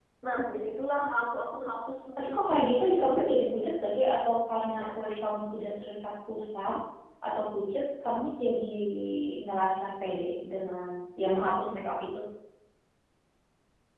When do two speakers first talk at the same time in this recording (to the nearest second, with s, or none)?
2 s